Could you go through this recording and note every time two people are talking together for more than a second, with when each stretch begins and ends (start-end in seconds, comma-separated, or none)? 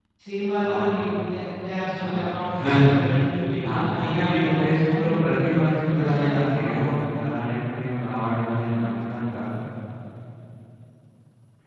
3.7-5.5